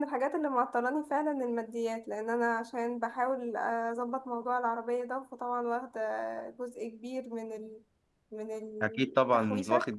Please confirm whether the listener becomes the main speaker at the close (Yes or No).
Yes